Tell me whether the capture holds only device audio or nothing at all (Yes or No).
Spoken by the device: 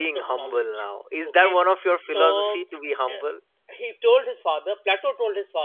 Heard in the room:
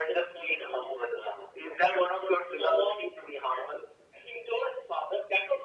Yes